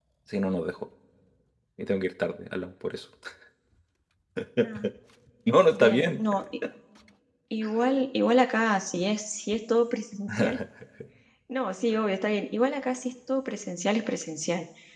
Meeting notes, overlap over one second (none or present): none